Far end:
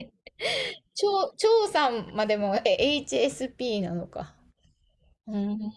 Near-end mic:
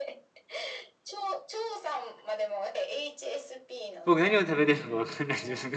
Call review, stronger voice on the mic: user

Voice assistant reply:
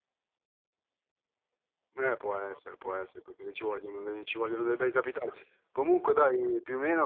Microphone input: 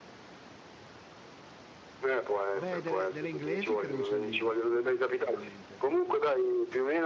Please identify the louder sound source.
echo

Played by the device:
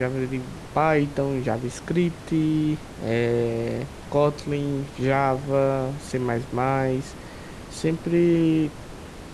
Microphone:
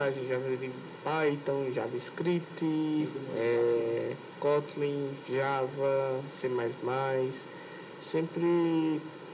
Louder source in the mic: echo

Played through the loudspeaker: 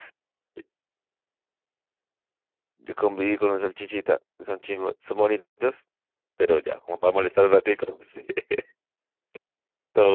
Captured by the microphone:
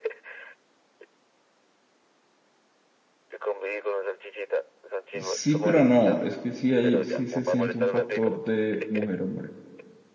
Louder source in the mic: user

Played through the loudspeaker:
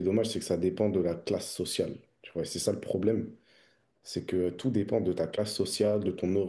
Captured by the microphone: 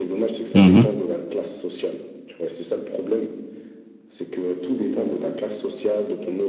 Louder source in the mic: user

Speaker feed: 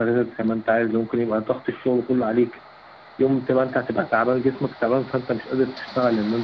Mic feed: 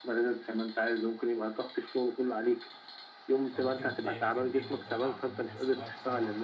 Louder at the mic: echo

